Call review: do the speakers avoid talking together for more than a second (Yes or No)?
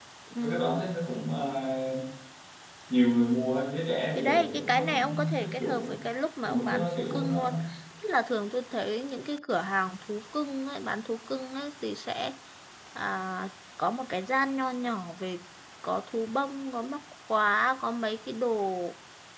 No